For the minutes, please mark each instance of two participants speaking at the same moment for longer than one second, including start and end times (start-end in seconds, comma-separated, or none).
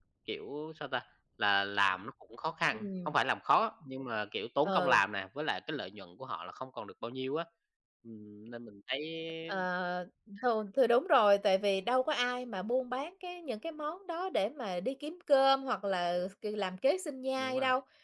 none